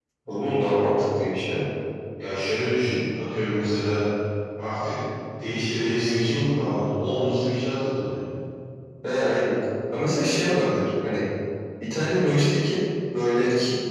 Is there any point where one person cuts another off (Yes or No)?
No